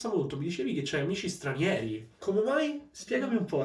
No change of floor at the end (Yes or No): No